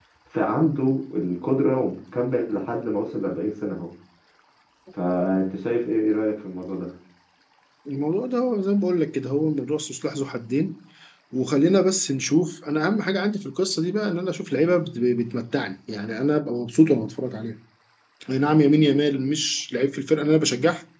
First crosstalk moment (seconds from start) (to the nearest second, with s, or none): none